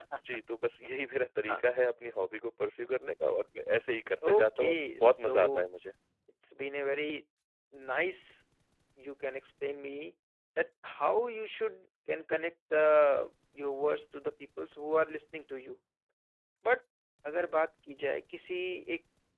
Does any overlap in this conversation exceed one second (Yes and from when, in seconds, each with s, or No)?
Yes, from 4.2 s